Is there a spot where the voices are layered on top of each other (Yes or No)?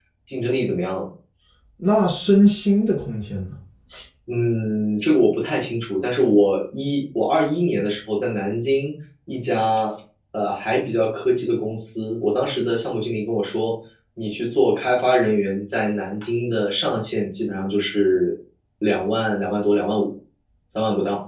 No